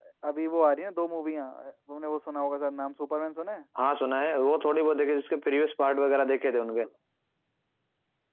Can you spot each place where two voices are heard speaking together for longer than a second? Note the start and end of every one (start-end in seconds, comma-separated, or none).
none